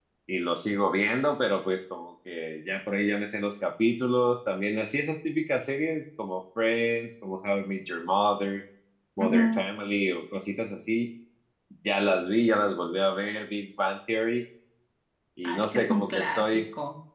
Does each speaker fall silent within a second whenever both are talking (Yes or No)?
No